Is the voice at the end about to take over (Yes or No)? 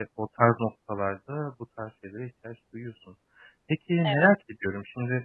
No